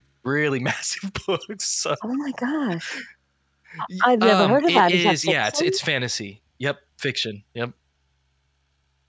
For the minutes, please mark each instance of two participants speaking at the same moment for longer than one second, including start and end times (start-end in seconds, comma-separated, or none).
4.0-5.8